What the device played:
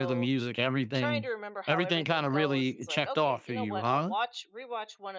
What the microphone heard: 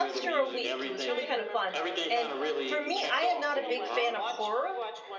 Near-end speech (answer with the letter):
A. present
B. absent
A